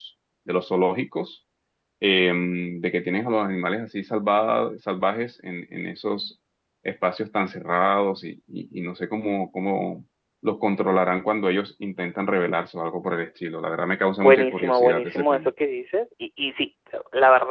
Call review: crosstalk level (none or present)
present